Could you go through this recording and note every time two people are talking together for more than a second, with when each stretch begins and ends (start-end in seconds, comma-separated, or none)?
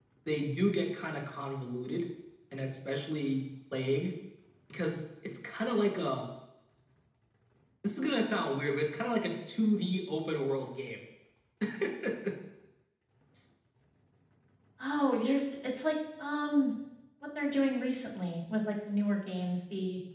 none